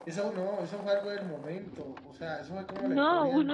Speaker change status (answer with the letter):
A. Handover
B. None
A